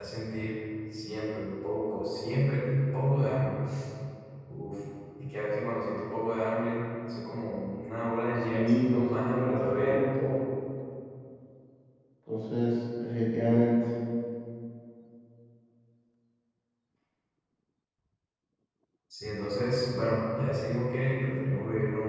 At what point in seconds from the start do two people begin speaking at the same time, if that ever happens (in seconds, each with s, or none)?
8.5 s